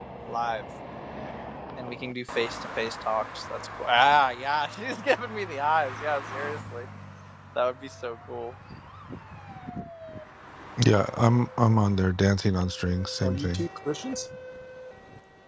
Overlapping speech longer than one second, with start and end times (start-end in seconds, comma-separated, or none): none